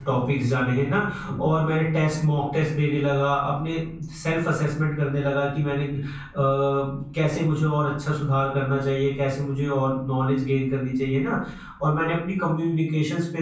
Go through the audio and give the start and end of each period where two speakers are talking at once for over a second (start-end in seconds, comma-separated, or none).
none